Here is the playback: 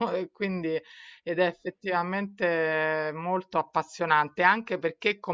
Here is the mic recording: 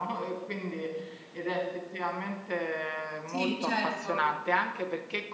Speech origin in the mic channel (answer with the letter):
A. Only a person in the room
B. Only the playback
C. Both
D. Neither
C